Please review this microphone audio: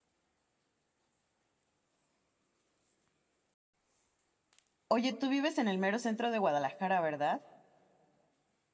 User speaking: Yes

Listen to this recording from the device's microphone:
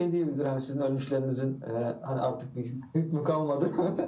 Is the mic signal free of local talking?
Yes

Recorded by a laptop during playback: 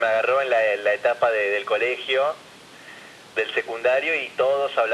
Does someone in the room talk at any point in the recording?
No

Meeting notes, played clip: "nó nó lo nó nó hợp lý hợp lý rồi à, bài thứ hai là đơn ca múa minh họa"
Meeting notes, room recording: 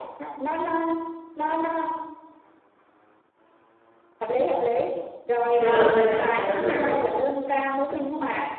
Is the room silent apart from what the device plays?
No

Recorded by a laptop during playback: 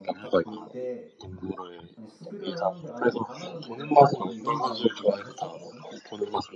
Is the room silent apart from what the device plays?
No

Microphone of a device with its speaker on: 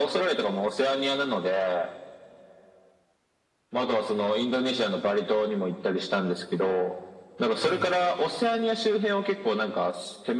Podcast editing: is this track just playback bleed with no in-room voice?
No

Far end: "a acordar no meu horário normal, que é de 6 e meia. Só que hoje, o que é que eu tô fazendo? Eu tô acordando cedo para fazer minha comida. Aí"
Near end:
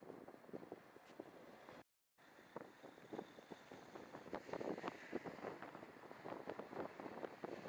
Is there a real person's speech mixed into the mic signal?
No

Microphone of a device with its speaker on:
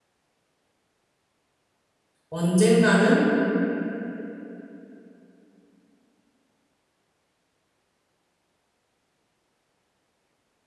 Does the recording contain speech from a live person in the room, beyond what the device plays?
Yes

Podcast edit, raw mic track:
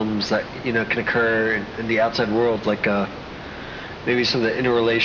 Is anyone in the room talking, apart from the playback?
No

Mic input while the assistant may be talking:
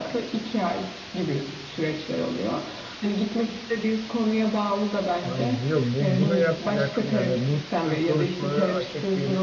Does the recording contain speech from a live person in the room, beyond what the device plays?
Yes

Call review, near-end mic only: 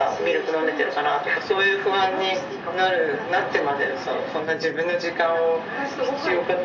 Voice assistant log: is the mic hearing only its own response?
Yes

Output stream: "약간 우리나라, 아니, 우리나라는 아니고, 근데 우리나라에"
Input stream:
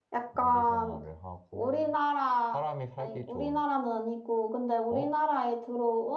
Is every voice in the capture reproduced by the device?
No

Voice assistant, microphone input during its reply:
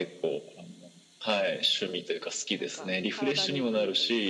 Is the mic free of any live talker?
No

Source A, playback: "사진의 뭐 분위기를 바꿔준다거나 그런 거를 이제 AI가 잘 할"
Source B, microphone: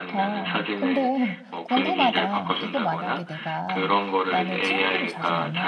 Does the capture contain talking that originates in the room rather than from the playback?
Yes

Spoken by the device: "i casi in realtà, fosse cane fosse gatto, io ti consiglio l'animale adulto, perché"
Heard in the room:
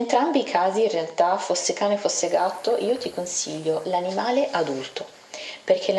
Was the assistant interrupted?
No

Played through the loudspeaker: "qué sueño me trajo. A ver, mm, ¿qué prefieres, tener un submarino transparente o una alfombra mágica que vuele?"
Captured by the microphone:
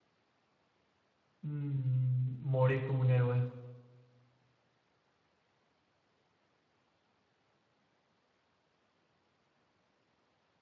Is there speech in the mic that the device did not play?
Yes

